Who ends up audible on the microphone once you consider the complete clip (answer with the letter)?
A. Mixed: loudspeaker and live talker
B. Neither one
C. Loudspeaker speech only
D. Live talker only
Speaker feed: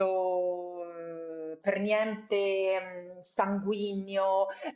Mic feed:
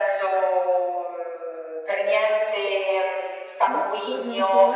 A